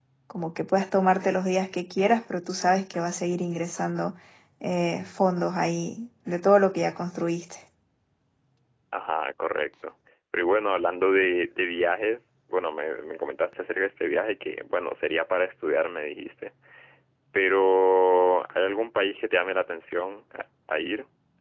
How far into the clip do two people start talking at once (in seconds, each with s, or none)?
none